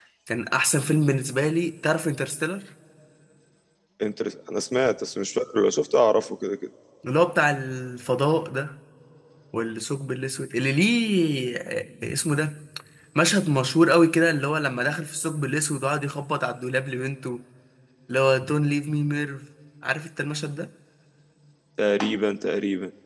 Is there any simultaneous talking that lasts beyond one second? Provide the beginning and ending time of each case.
none

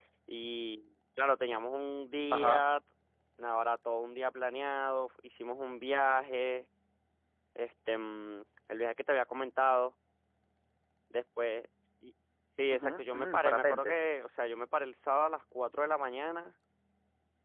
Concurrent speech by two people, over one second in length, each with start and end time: 12.7-14.0

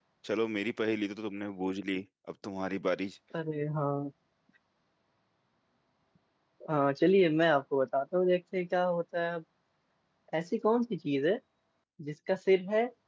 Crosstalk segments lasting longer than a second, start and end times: none

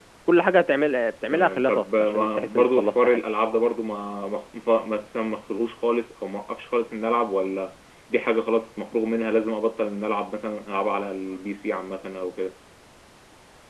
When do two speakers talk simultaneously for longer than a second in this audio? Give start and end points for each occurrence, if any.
1.3-3.2

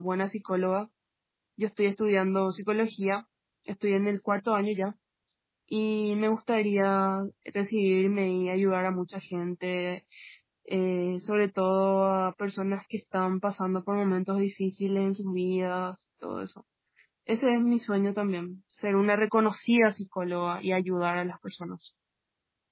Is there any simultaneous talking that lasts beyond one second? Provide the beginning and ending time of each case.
none

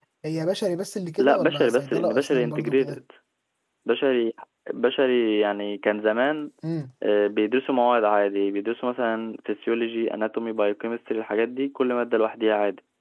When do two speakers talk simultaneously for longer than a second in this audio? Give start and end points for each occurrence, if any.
1.2-3.0

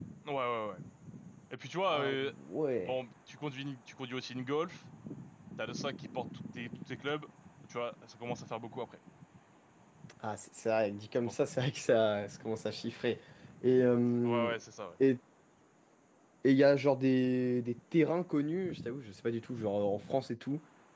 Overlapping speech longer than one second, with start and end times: none

